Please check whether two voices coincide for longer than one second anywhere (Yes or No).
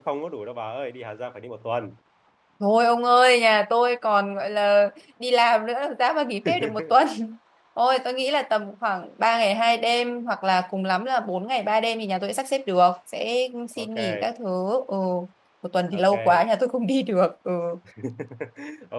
No